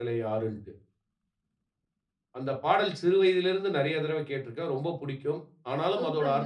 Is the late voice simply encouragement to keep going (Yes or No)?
Yes